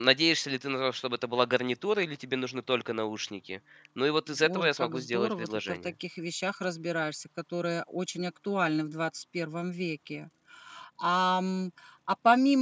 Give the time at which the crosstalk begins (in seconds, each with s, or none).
4.3 s